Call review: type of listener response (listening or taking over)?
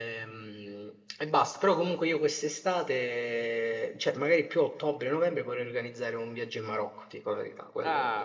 taking over